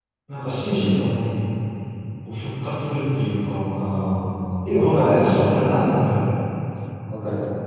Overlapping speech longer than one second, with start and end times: 4.7-6.0

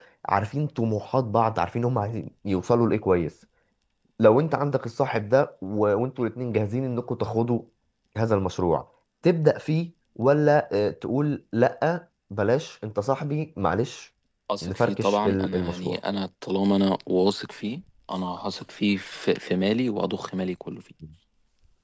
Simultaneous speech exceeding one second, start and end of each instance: 14.6-16.0

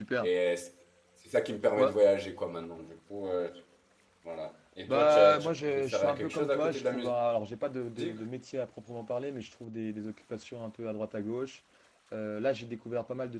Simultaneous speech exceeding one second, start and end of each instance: 4.9-7.1

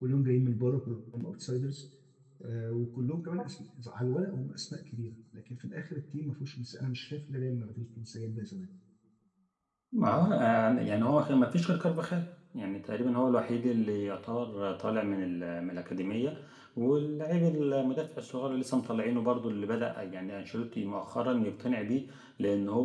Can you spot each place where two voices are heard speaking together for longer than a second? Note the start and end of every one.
none

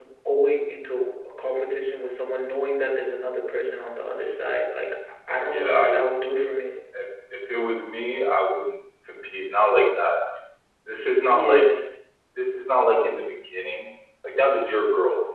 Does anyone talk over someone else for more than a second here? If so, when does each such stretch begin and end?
none

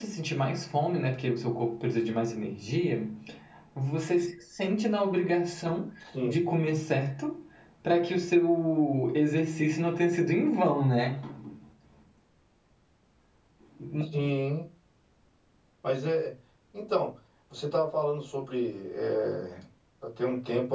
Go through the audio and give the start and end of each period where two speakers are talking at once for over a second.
none

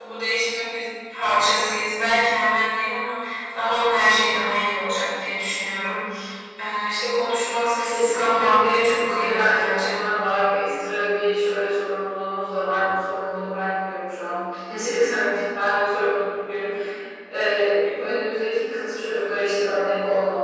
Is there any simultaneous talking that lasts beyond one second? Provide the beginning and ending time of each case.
7.8-10.0

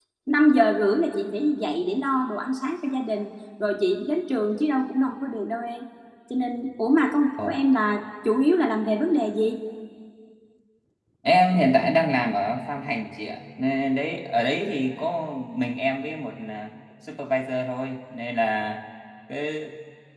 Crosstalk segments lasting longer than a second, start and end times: none

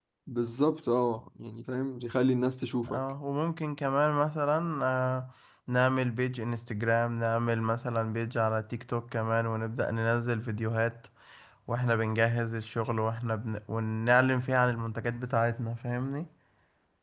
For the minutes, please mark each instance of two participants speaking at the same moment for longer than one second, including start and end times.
none

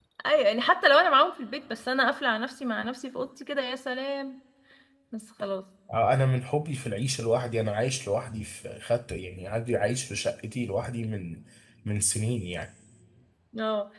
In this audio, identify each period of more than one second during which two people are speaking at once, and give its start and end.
none

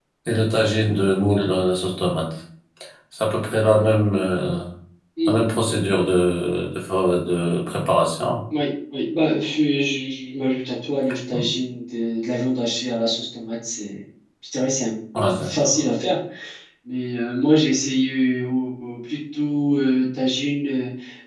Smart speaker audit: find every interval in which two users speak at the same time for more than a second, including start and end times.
none

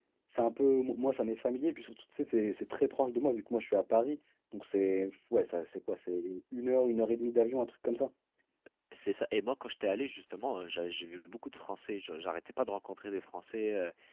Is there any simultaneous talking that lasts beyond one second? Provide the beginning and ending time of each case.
none

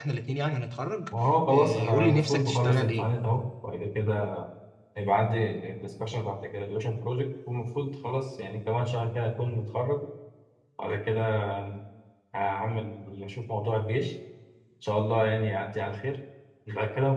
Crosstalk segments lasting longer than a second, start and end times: 1.5-3.1

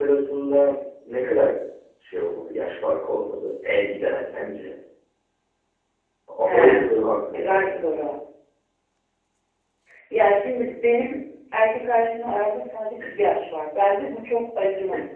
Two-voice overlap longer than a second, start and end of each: none

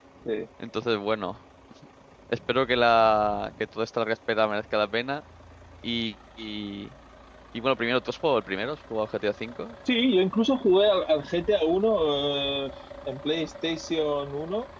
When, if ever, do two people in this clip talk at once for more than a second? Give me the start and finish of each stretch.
none

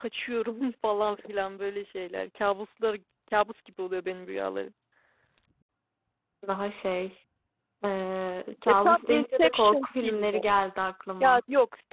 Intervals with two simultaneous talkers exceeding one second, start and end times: 8.7-10.4

